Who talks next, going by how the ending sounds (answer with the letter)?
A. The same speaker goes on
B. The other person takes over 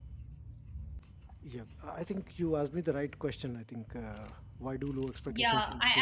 B